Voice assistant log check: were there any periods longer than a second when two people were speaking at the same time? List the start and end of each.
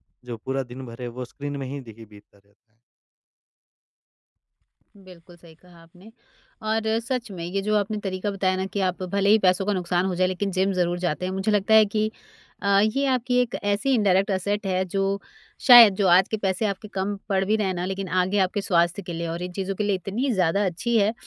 none

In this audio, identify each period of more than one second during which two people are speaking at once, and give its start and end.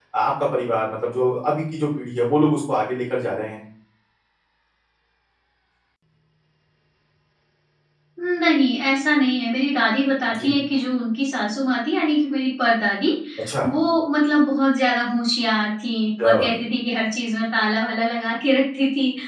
none

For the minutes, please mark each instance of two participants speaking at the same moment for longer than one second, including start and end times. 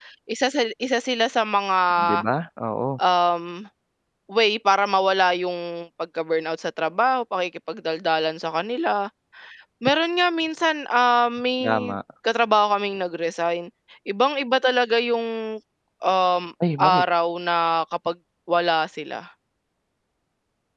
none

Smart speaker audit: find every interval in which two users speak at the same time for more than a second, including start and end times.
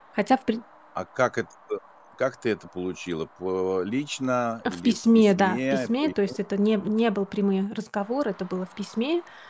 4.7-6.4

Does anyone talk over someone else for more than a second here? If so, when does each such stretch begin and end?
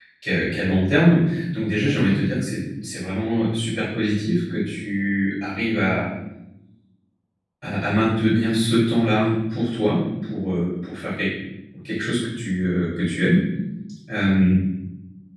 none

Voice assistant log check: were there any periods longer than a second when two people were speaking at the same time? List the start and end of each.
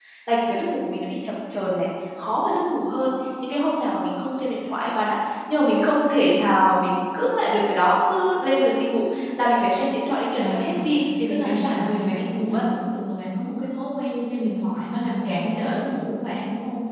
11.3-12.6

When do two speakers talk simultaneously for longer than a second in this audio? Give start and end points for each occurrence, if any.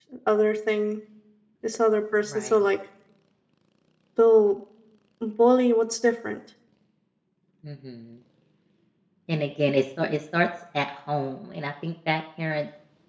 none

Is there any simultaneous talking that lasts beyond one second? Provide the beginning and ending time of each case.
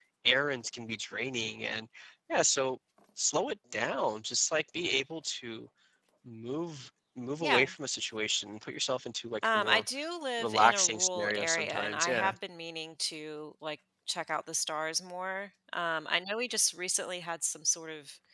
10.4-12.3

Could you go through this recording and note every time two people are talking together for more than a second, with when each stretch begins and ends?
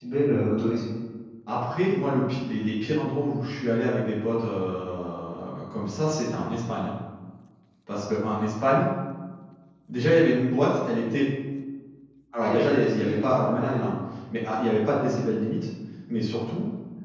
12.3-13.8

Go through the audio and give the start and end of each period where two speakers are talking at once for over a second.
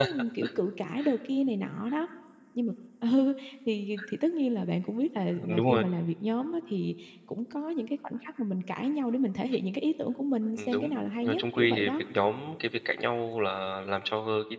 10.6-12.0

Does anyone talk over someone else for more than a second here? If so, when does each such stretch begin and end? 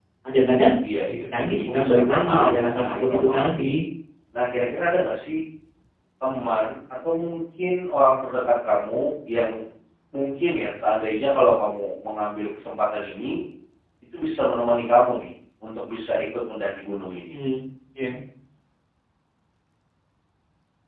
1.1-3.8

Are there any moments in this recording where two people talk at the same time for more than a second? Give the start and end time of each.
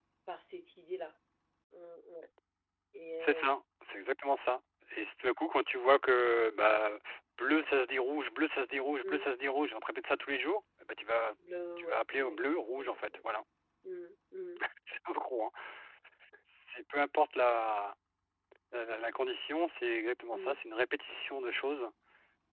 11.8-13.2

